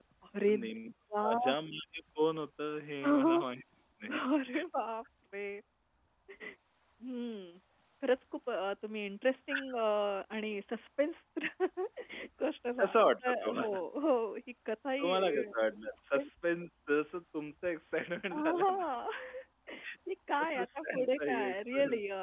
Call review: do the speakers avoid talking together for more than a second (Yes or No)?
No